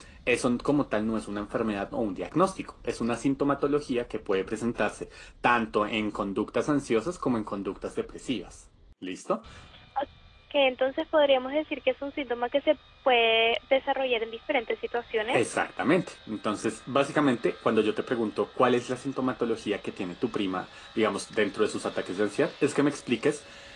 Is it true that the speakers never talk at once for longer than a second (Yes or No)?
Yes